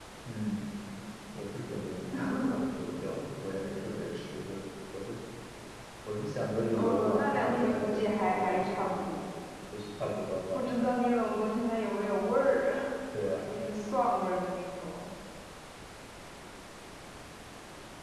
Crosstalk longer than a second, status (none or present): present